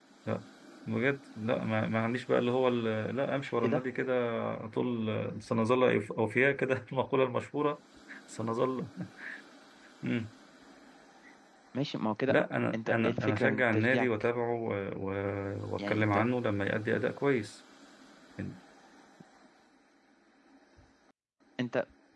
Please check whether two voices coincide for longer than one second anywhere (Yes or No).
Yes